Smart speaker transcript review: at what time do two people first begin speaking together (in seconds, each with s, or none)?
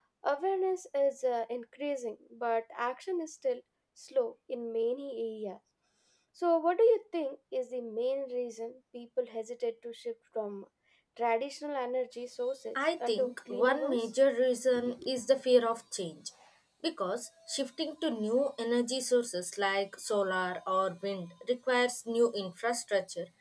12.8 s